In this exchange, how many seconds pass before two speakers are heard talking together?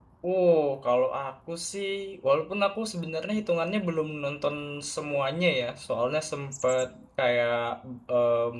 none

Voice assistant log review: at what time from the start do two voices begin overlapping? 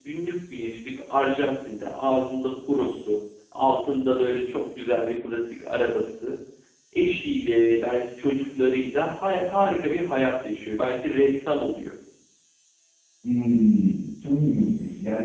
none

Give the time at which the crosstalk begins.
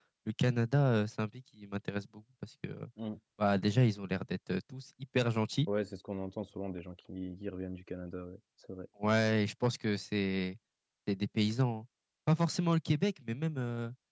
none

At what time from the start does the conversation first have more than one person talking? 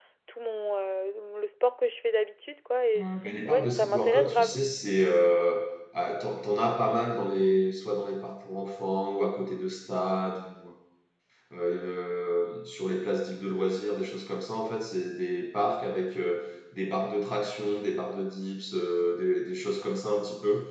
3 s

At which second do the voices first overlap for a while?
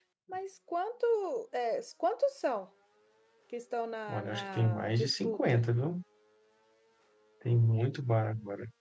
4 s

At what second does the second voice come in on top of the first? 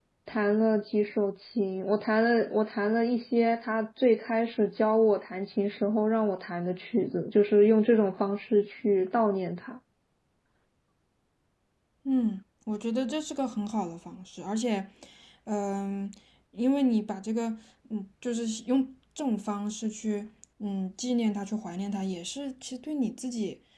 none

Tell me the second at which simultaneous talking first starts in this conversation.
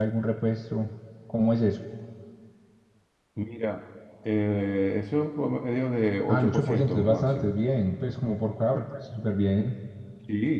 6 s

